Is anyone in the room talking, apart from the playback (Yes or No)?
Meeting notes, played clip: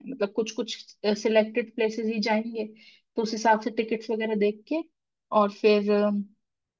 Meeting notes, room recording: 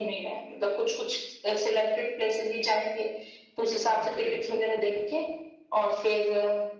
Yes